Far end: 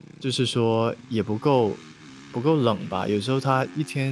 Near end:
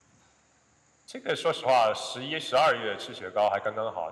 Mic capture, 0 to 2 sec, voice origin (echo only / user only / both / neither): user only